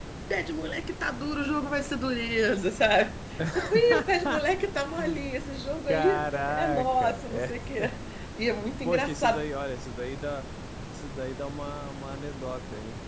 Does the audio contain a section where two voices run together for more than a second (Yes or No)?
Yes